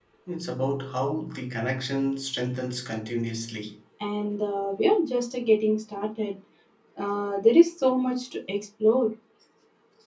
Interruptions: none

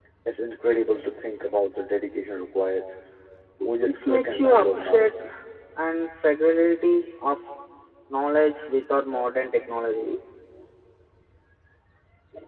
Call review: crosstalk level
present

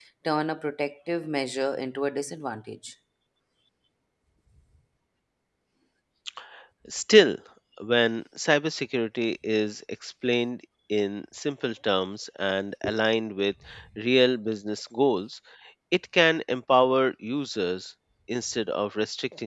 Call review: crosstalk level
none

